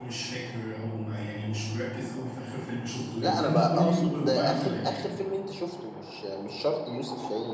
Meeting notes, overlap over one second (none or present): present